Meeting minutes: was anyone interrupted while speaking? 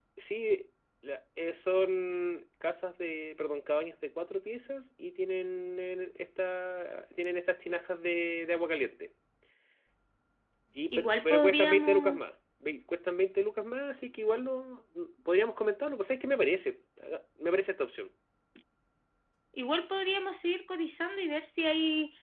Yes, from 11.0 s

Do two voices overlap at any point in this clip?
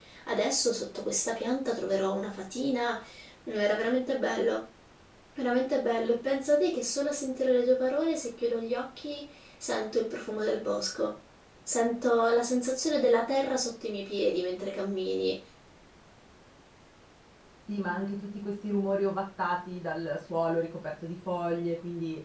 No

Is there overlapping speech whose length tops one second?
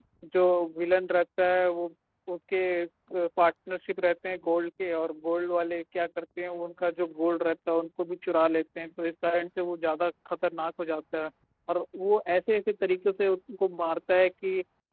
No

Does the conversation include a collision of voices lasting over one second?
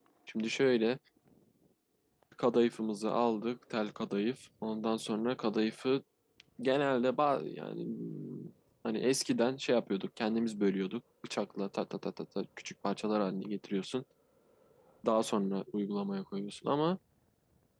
No

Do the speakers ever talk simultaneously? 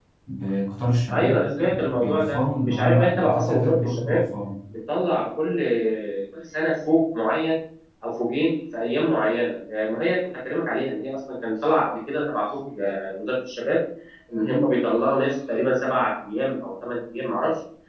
Yes, from 1.1 s

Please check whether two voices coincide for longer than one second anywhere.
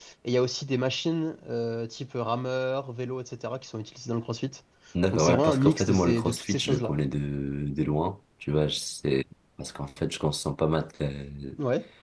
Yes, from 5.1 s

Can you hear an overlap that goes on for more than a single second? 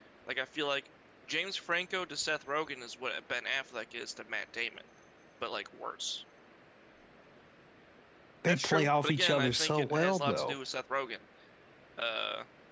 Yes, from 8.5 s

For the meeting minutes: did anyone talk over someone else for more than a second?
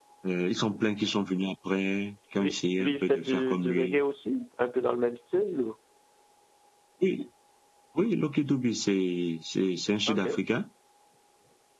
Yes, from 2.4 s

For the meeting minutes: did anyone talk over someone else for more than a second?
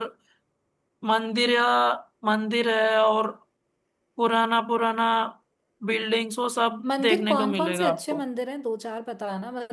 Yes, from 6.8 s

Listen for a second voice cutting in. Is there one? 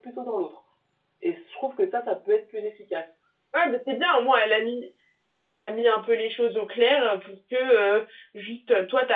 No

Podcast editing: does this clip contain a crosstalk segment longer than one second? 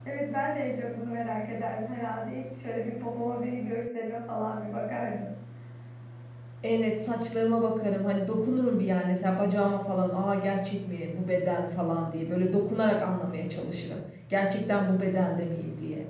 No

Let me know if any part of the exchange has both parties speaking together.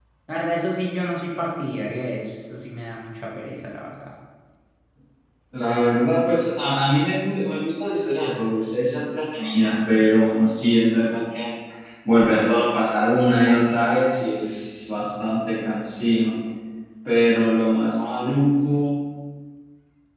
No

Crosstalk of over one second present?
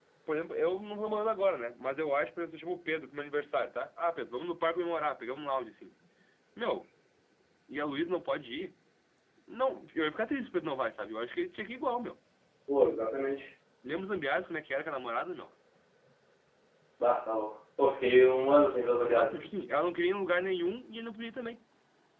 No

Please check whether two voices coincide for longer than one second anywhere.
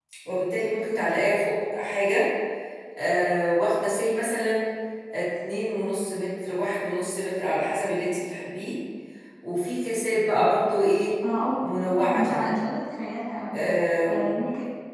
No

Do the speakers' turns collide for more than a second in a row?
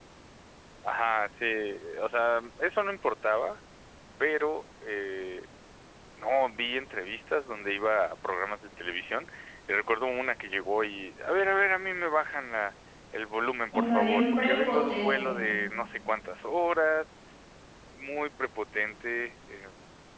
Yes, from 13.7 s

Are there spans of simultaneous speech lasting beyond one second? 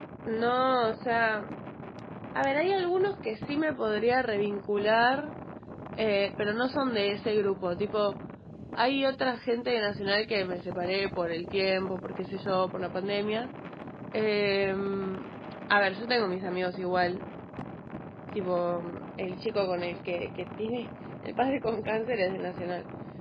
No

